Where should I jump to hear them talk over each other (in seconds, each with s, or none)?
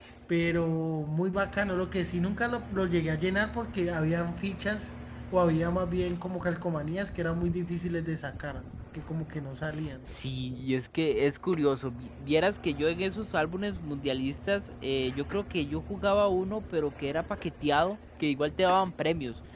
none